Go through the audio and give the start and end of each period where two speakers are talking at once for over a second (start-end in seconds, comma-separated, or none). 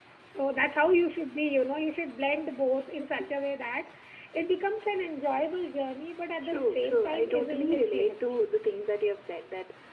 6.4-8.4